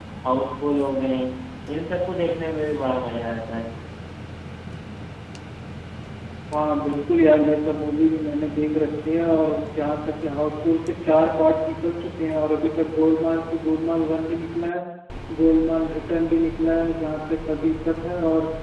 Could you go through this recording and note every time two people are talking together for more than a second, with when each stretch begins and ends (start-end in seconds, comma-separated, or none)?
none